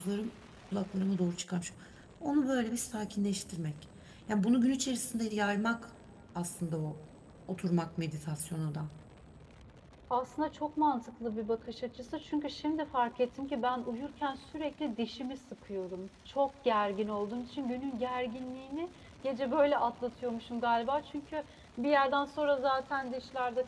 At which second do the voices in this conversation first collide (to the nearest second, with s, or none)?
none